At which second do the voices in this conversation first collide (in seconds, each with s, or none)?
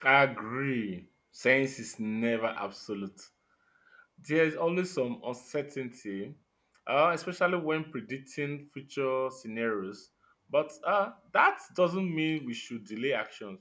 none